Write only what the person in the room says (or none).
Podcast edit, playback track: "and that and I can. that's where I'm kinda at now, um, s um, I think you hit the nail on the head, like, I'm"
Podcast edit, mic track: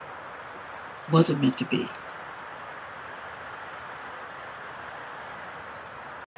wasn't meant to be